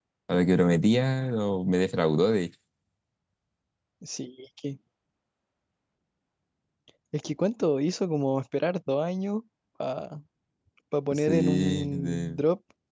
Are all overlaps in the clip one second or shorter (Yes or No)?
No